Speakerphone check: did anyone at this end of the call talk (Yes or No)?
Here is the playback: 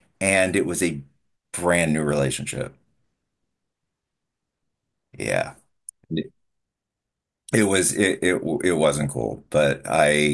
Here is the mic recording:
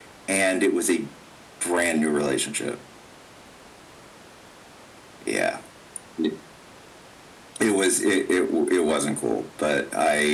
No